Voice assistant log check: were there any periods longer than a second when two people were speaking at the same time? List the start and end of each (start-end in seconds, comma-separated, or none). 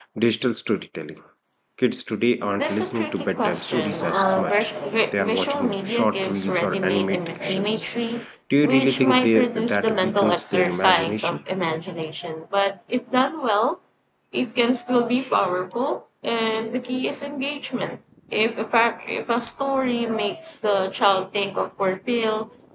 2.6-4.7, 5.1-7.8, 8.6-11.4